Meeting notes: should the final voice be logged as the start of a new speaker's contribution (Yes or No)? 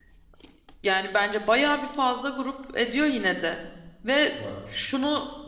No